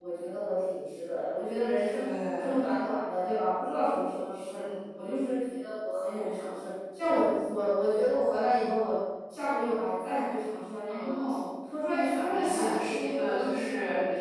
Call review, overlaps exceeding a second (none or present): present